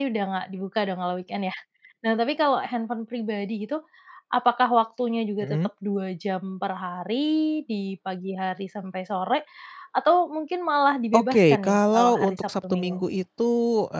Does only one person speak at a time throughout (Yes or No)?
No